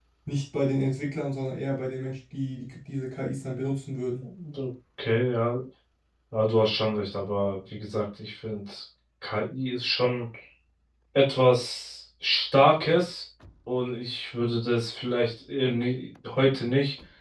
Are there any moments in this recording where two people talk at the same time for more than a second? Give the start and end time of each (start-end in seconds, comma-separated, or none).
none